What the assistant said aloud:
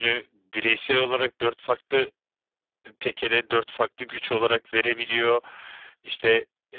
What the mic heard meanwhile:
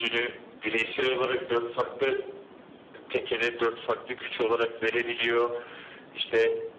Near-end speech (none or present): none